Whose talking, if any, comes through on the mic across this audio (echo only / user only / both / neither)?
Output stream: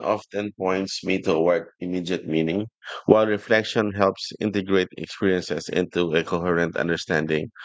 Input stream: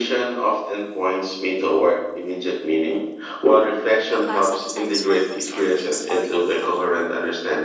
both